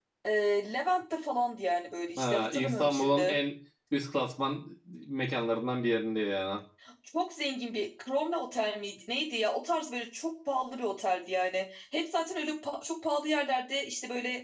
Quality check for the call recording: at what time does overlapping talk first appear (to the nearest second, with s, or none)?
2 s